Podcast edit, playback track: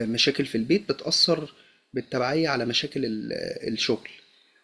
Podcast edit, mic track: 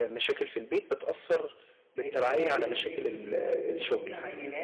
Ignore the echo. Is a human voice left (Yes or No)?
Yes